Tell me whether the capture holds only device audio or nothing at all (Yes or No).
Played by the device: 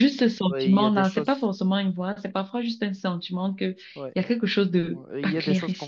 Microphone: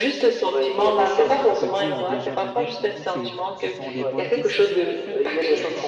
No